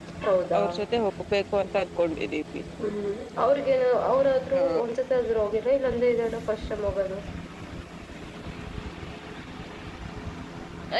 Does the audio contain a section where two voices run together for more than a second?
No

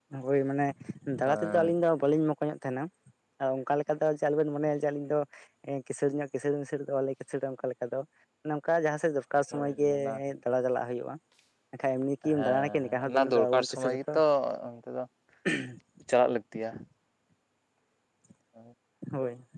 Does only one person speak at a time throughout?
No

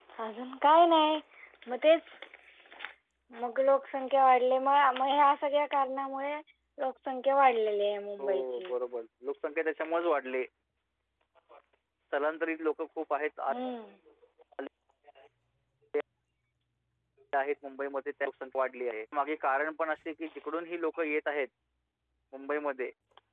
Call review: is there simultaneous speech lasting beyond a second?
No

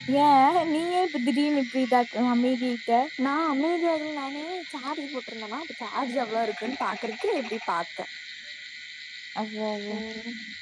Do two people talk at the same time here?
No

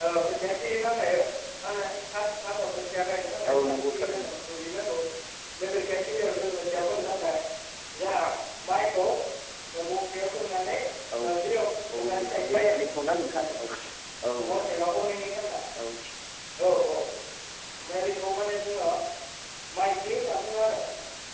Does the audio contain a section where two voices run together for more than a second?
Yes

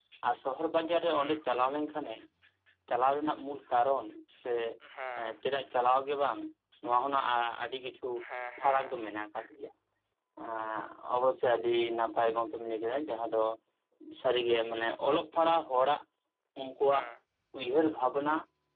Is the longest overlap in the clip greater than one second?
No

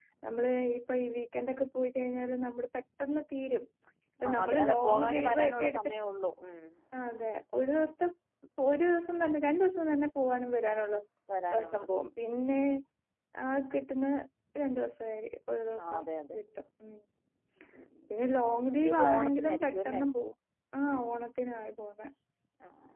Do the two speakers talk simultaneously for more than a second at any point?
Yes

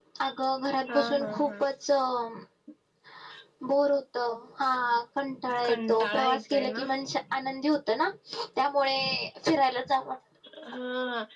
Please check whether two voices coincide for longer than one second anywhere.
Yes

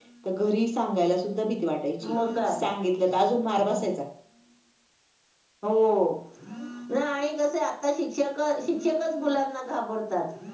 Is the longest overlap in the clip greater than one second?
No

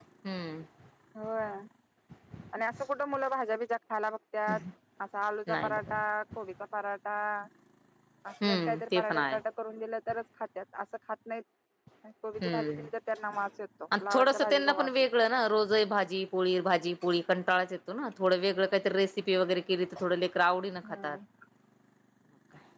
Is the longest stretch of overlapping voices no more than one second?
No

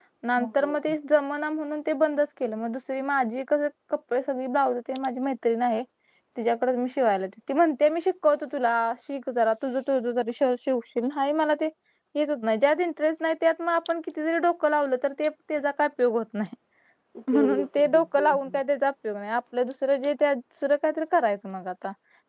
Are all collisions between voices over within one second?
No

